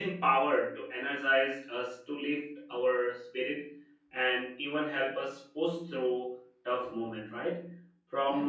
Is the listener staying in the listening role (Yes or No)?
Yes